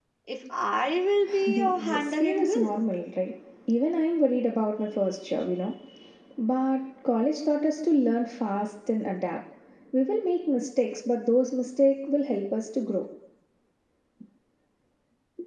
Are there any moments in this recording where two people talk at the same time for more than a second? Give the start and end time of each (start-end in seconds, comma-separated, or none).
1.5-2.8